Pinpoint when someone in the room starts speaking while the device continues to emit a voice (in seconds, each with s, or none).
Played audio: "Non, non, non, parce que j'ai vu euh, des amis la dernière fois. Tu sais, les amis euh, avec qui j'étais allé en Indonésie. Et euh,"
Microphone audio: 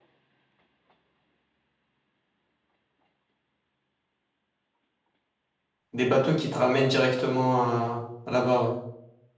5.9 s